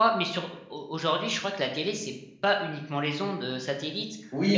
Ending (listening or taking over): taking over